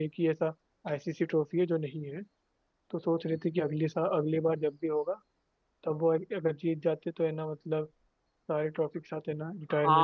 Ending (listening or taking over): taking over